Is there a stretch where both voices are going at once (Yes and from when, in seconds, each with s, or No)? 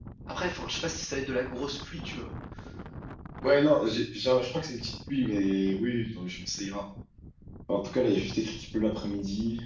No